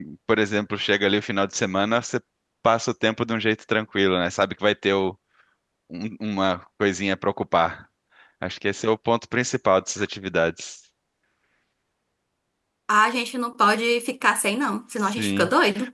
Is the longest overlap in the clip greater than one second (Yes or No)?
No